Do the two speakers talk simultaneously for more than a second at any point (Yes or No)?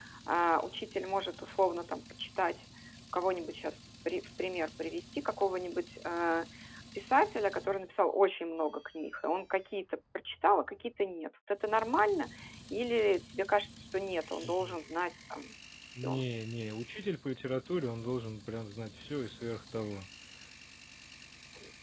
No